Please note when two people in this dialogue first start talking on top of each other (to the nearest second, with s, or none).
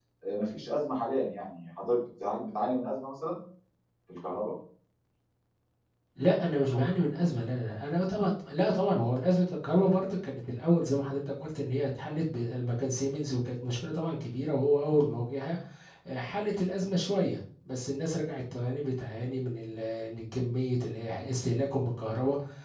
none